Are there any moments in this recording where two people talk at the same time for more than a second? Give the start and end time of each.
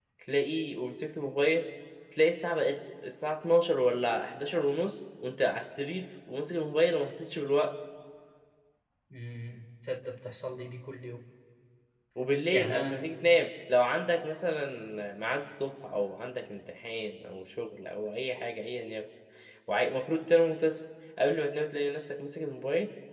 none

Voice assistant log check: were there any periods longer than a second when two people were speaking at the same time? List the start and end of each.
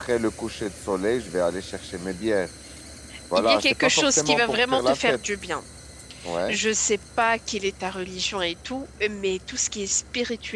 3.4-5.2

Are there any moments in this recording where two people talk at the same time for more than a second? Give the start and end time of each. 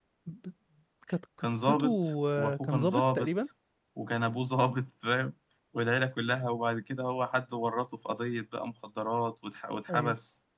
1.4-3.3

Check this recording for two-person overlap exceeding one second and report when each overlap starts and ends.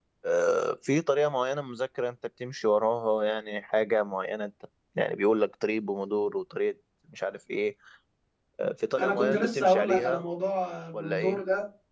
9.0-10.2

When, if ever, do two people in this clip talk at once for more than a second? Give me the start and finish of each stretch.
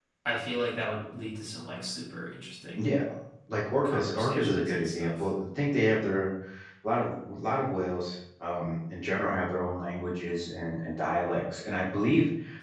3.8-5.2

